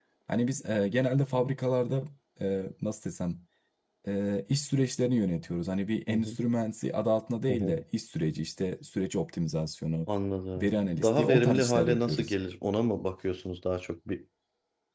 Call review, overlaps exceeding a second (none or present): present